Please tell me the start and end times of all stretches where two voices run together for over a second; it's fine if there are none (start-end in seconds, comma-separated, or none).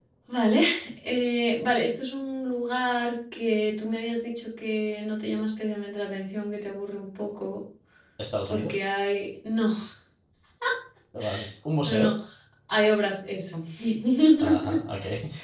none